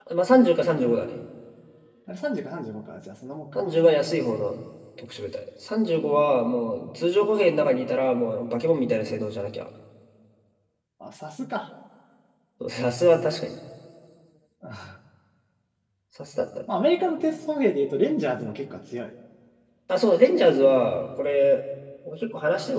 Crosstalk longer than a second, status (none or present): none